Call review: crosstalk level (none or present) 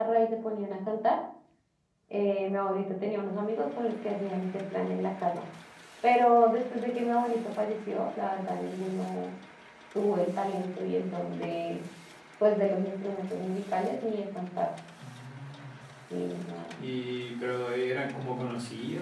none